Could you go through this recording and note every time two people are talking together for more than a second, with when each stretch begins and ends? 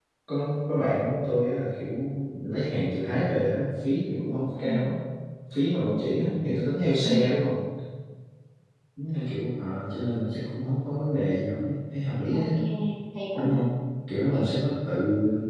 none

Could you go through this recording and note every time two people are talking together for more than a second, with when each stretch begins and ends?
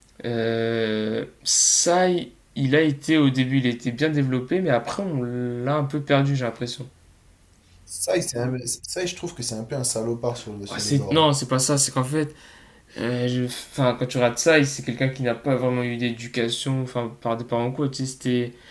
none

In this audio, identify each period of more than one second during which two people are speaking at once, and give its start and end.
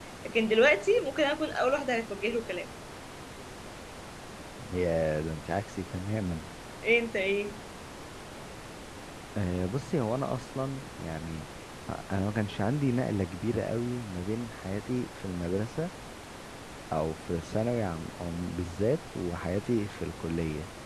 none

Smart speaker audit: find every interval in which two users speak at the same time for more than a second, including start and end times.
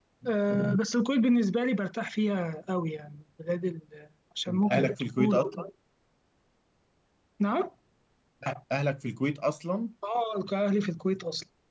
4.5-5.7

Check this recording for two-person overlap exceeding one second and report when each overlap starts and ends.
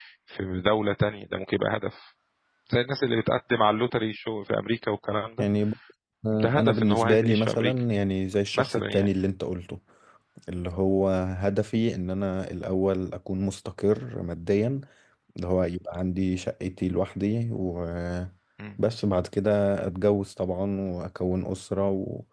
6.3-7.8

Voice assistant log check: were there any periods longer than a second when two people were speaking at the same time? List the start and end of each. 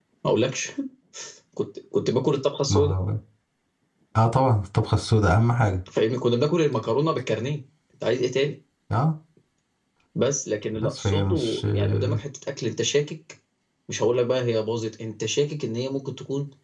10.8-12.2

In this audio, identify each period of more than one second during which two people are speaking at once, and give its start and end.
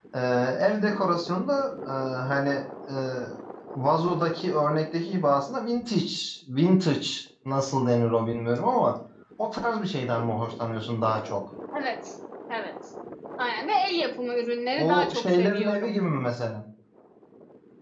14.8-16.0

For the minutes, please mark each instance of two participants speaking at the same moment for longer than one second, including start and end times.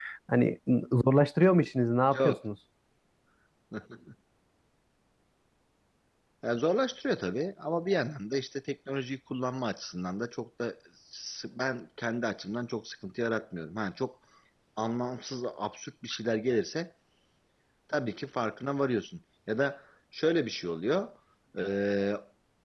none

